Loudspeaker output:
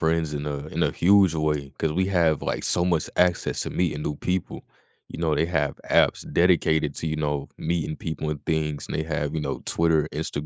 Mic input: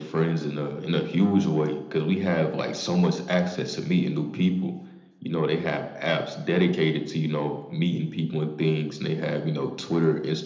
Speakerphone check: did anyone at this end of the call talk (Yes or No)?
No